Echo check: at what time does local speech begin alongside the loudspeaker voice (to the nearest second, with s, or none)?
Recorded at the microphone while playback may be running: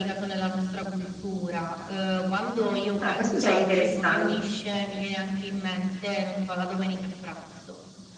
3 s